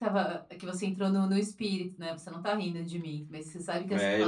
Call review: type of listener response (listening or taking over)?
taking over